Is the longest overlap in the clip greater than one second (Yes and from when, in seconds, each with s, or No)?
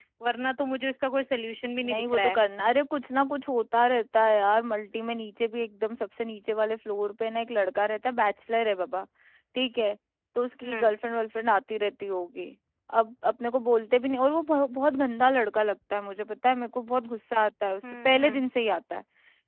No